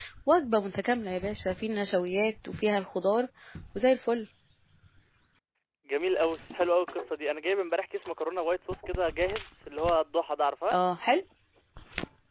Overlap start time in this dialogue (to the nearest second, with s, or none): none